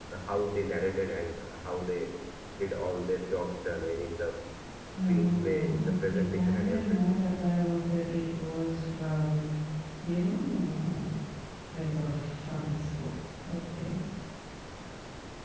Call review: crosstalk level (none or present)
present